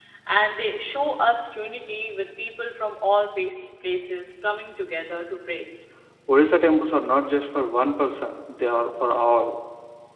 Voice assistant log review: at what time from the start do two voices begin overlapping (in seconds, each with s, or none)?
none